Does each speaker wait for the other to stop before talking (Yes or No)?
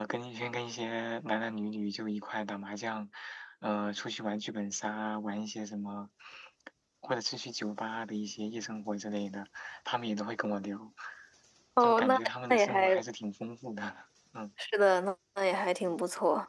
No